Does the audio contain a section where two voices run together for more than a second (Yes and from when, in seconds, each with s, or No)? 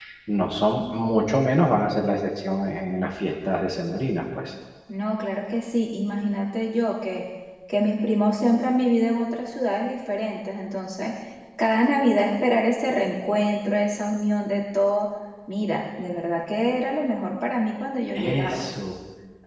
No